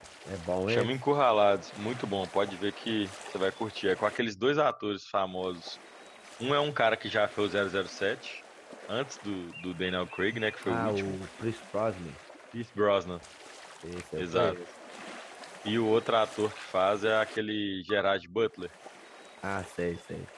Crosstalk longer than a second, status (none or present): none